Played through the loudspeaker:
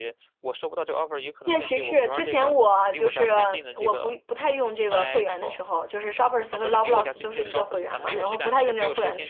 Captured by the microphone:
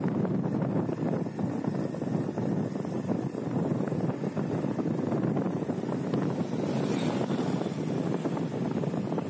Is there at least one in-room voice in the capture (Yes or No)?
No